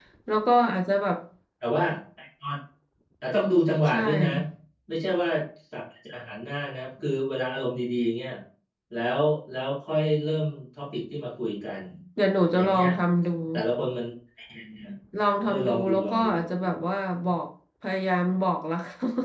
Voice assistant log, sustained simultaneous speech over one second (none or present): present